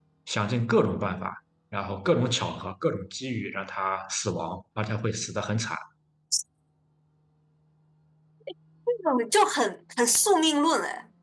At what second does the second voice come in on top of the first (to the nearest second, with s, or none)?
none